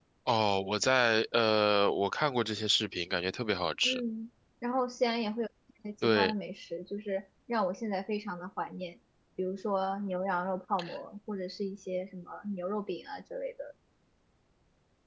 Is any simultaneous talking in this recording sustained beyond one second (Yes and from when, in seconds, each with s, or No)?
No